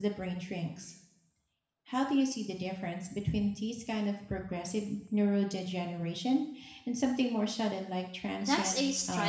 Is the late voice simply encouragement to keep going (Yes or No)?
No